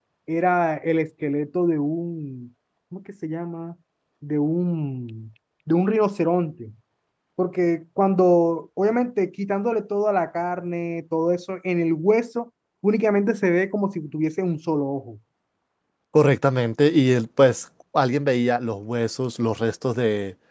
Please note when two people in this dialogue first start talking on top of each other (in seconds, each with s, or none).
none